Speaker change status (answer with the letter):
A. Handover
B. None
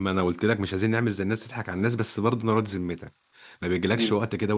B